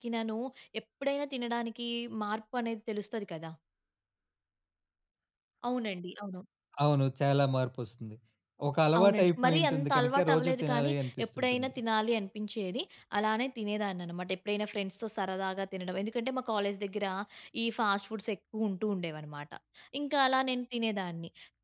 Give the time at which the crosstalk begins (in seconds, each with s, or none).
9.0 s